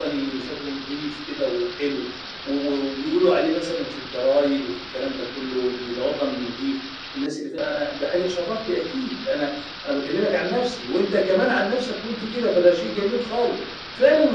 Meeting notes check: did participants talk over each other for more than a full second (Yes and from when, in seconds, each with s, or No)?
No